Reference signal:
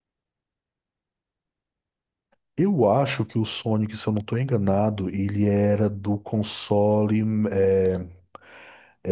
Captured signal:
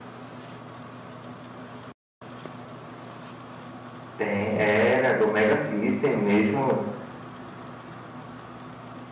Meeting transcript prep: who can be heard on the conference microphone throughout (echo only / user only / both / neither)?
user only